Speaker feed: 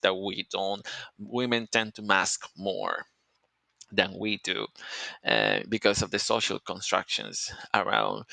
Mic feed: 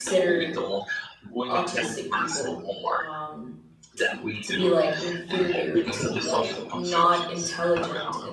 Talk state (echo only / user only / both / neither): both